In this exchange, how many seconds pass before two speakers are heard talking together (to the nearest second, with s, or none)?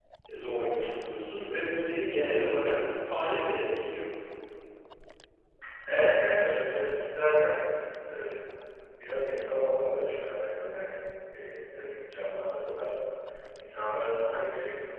none